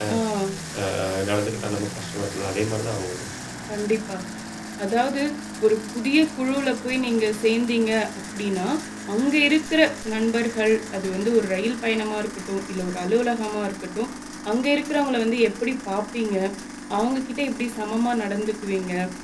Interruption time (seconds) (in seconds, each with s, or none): none